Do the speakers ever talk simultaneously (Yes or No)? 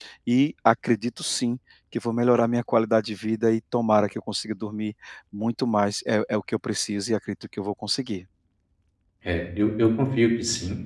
No